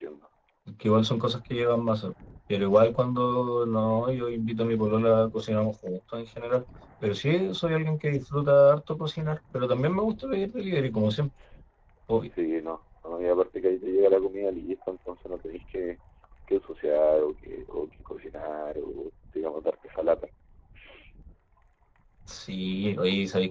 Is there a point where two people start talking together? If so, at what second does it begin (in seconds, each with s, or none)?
none